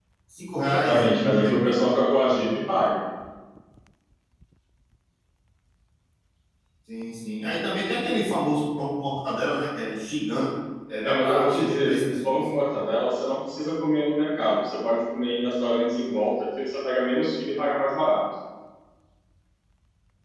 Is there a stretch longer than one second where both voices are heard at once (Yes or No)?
Yes